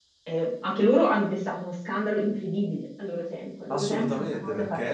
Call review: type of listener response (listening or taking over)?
taking over